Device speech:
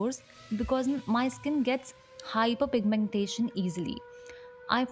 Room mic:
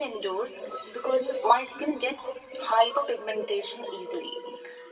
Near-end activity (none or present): none